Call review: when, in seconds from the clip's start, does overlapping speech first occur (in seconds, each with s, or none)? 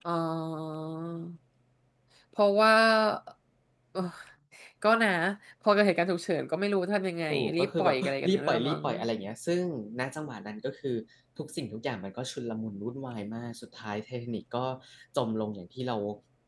7.3 s